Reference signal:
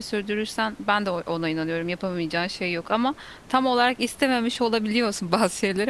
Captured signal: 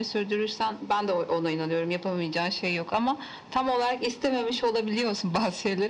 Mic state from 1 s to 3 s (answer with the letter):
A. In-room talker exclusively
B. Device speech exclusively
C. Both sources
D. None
B